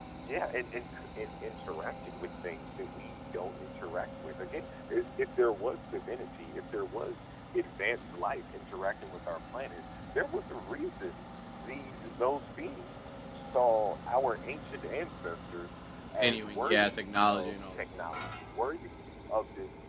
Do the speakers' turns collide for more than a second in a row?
Yes, from 16.2 s

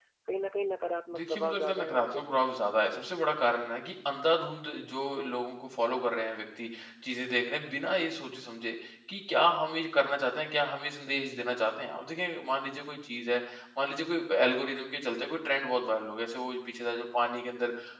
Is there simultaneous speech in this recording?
Yes, from 1.1 s

